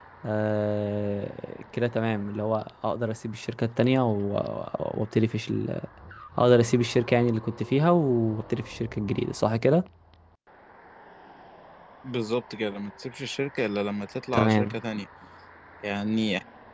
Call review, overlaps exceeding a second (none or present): none